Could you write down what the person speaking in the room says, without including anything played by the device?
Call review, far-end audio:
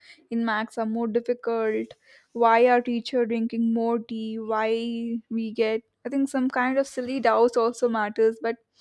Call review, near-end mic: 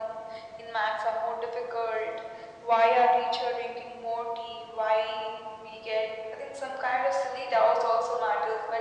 none

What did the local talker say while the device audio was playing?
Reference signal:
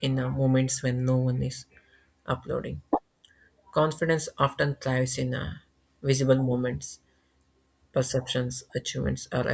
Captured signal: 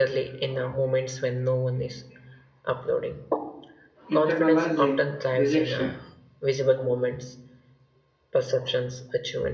internalizing rejection

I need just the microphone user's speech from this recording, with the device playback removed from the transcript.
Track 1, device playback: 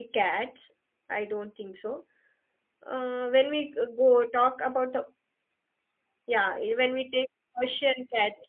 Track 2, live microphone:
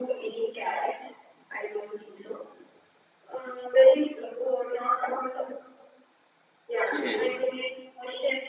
Okay.

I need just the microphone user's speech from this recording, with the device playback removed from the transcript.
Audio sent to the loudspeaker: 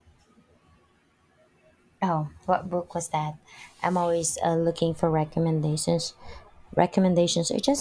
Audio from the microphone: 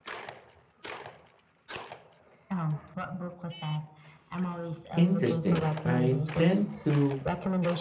Interesting. I tend to

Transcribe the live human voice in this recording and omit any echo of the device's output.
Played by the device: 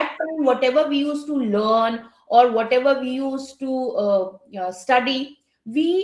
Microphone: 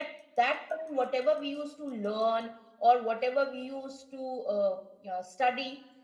none

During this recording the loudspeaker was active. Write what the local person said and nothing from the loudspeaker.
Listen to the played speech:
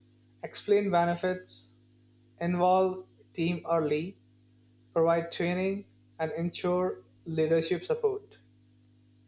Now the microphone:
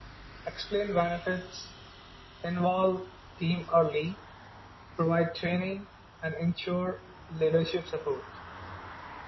none

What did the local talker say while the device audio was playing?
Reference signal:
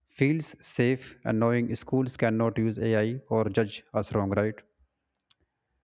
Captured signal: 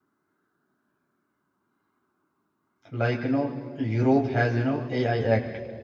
like you know europe has you know ai act

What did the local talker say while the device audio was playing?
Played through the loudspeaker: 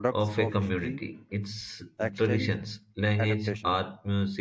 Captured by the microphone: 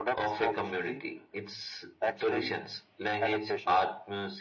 none

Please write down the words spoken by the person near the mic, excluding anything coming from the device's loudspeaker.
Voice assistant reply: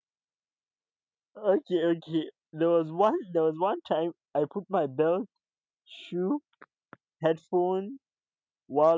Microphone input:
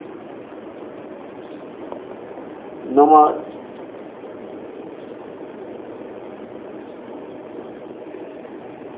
normal

